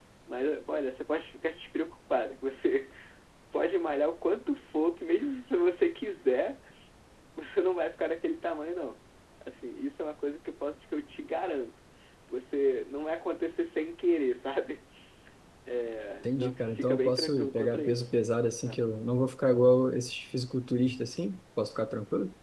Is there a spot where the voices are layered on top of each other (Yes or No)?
Yes